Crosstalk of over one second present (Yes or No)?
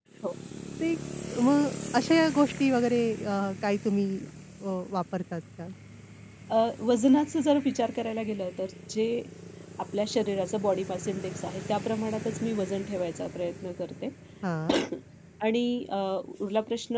No